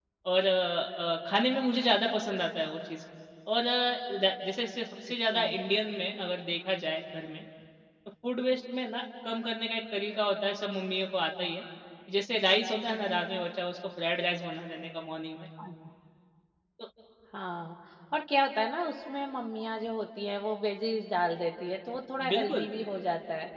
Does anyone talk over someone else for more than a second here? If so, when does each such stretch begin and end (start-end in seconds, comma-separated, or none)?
none